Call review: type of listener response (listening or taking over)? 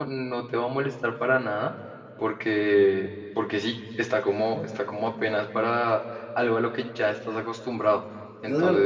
taking over